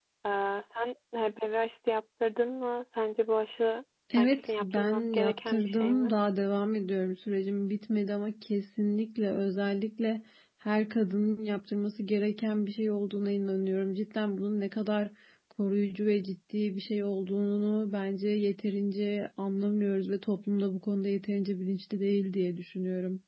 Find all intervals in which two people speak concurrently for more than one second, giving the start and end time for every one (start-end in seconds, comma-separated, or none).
4.2-6.1